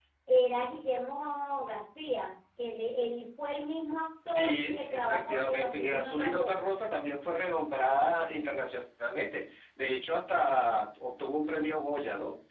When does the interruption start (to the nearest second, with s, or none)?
4 s